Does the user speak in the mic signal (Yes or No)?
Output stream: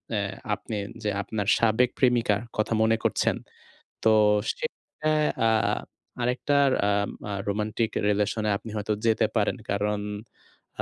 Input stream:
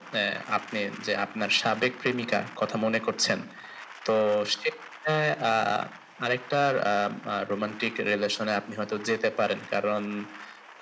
No